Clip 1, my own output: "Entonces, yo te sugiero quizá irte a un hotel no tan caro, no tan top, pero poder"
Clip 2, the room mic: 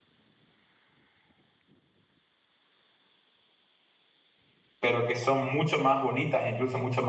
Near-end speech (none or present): present